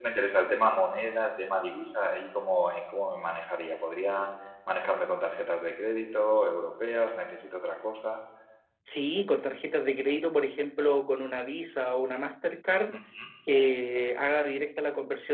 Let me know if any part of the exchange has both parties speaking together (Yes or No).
No